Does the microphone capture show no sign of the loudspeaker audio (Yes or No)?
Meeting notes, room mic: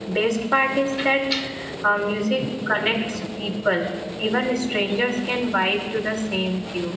Yes